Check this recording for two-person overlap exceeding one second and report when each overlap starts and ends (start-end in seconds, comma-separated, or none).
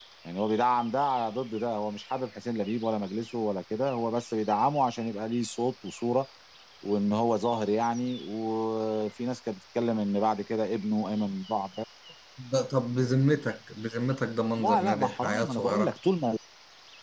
14.6-15.9